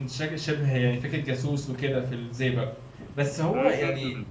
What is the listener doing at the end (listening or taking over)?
listening